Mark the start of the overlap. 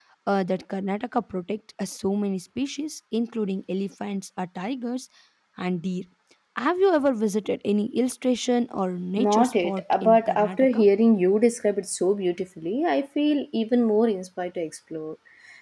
9.2 s

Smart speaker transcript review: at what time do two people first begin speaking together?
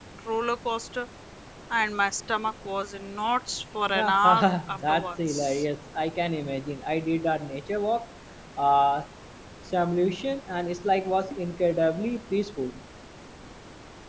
3.9 s

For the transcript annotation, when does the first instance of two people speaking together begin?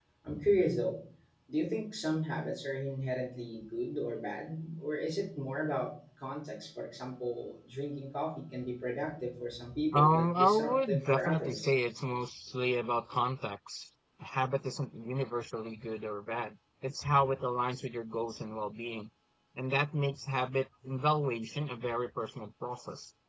9.9 s

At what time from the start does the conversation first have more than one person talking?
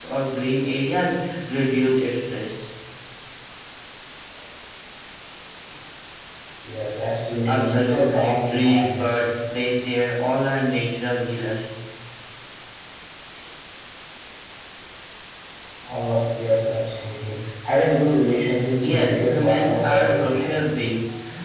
7.5 s

